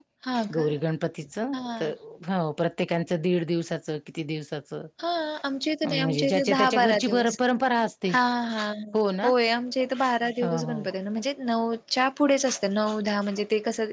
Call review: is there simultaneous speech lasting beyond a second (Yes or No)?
Yes